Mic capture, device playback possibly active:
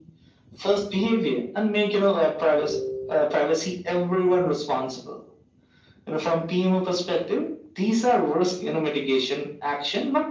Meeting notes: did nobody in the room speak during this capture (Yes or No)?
Yes